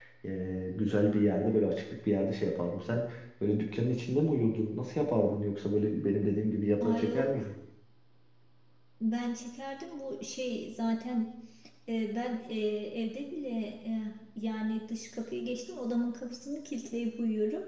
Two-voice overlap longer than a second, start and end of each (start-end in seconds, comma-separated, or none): none